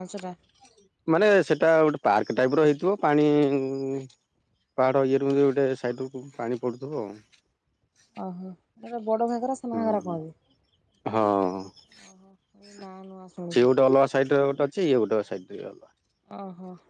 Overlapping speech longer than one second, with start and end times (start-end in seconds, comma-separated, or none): none